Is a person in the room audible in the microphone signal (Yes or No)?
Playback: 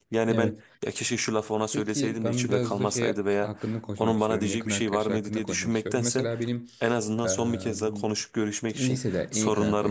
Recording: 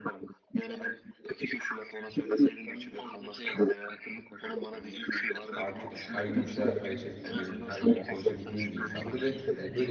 Yes